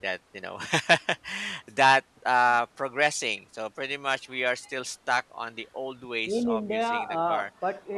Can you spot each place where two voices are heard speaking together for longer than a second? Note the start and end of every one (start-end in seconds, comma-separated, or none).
6.3-7.5